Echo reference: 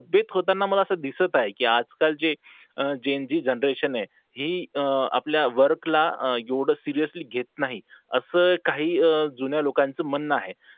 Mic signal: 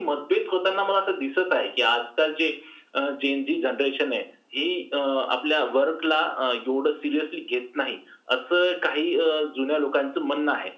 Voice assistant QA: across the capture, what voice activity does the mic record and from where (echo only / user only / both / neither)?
echo only